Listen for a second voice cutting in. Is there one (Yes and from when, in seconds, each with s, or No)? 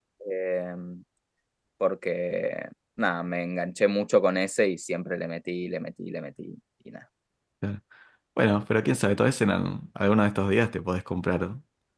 No